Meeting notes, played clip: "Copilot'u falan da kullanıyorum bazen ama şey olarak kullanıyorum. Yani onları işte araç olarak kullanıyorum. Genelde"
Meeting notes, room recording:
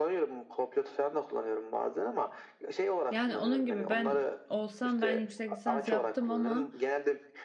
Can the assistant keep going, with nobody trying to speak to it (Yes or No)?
No